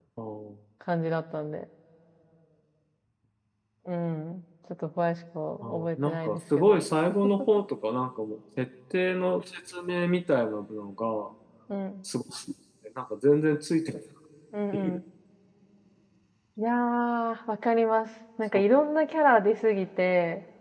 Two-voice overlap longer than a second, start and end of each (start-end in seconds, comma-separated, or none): 5.6-6.8